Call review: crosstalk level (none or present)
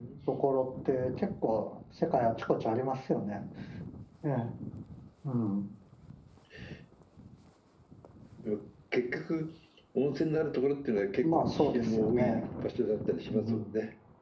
present